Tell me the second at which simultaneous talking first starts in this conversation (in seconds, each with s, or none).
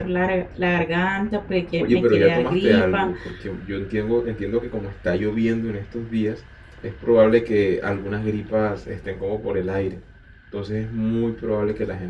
1.8 s